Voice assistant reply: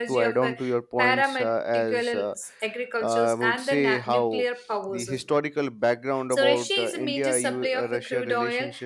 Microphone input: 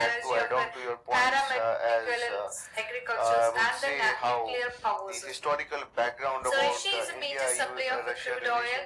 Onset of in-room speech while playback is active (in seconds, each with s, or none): none